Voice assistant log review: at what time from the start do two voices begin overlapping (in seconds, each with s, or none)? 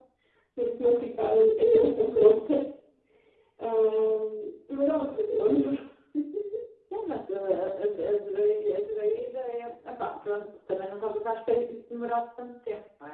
none